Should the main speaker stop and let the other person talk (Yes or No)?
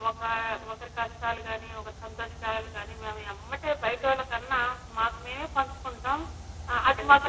No